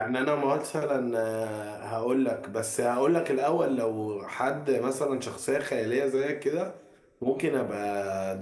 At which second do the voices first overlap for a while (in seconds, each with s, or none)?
none